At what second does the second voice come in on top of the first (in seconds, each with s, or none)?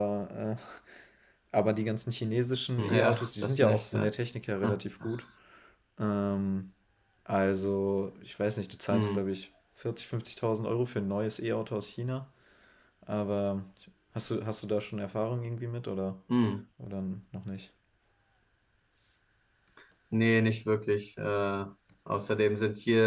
2.9 s